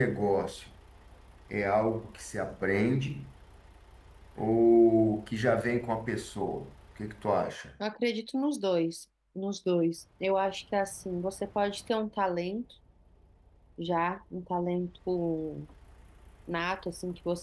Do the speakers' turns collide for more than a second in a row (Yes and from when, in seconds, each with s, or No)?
No